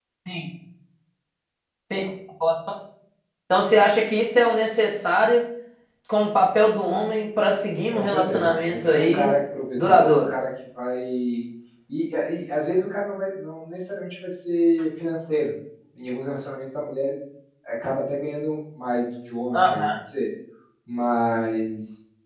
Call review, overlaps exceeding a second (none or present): present